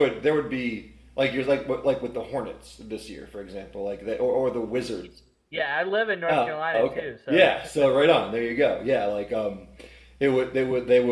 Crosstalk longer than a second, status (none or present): present